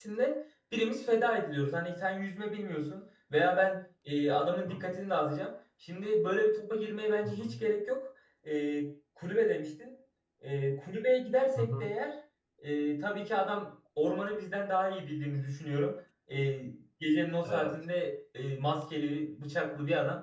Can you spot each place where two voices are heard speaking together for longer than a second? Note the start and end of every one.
none

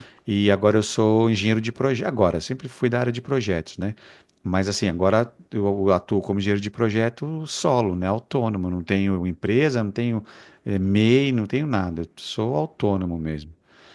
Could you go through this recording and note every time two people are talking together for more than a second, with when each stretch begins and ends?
none

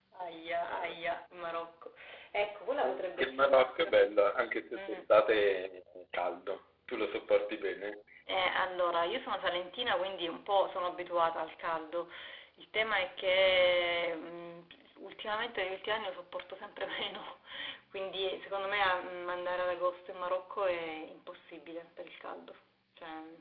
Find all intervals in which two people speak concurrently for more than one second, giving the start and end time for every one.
2.8-4.1

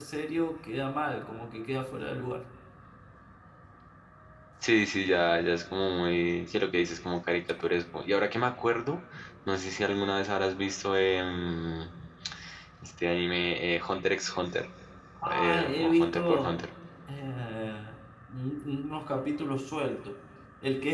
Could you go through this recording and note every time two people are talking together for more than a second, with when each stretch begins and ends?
15.3-16.7

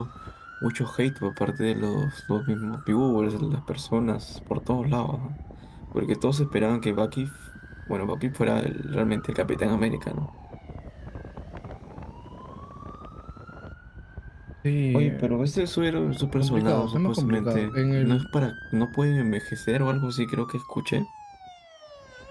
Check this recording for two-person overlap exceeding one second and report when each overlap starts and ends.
16.4-18.2

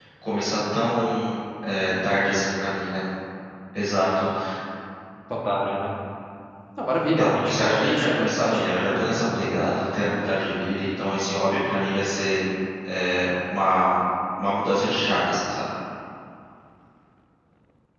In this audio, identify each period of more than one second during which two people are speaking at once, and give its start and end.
7.2-9.2

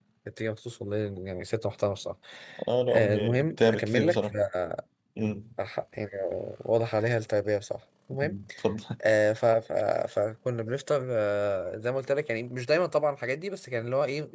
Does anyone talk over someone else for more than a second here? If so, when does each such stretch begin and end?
2.9-4.3

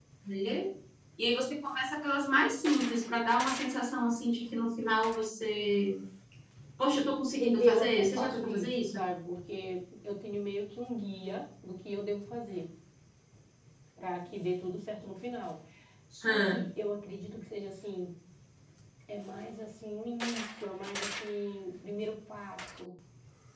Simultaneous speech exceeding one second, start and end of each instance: 7.4-9.0

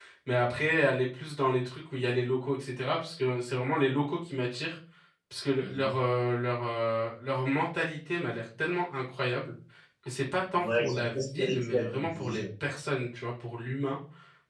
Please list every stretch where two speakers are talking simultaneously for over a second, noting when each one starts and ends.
10.6-12.4

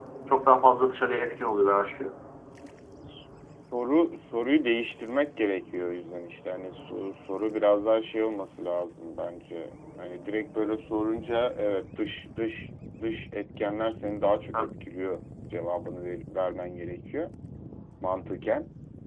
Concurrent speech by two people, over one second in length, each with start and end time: none

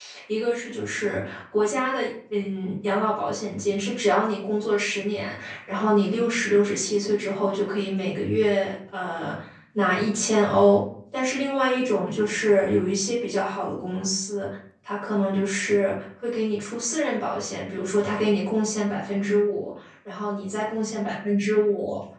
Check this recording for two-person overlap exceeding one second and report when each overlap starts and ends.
none

